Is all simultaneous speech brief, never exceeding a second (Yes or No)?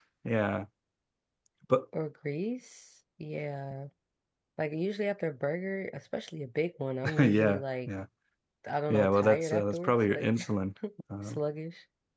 No